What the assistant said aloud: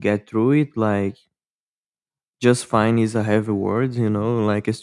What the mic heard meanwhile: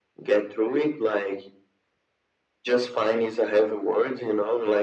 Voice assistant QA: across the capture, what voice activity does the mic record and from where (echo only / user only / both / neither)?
echo only